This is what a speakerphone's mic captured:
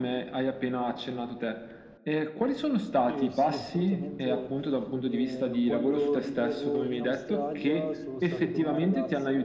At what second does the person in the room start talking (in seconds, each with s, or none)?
3.0 s